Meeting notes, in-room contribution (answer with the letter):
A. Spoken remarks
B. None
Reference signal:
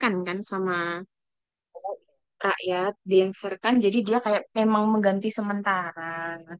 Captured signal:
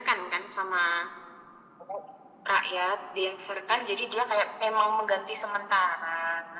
B